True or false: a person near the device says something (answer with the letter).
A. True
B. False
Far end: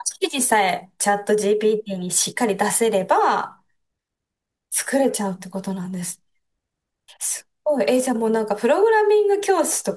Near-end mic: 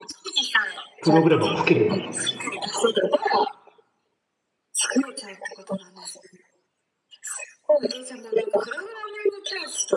A